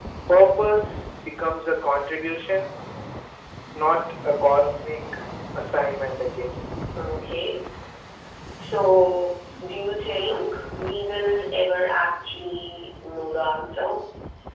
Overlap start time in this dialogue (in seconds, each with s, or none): none